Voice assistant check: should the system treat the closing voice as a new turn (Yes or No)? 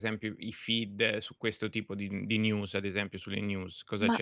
Yes